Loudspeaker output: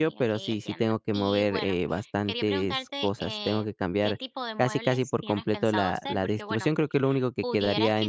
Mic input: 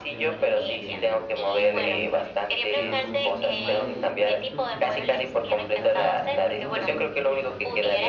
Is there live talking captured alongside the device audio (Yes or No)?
Yes